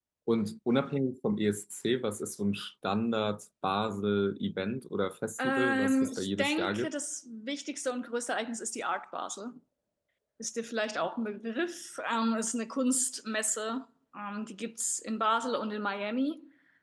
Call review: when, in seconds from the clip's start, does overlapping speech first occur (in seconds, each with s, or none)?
5.4 s